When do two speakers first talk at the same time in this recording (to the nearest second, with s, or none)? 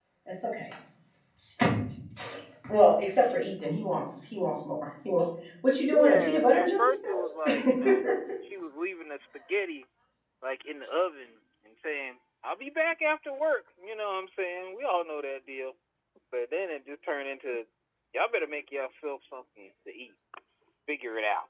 6 s